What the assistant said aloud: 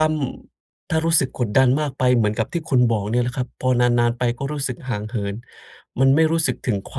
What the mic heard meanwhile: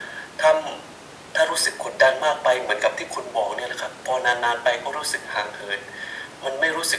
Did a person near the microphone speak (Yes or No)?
No